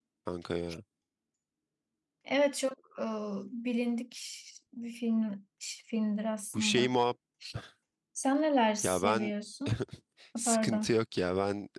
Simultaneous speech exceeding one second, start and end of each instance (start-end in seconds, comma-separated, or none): none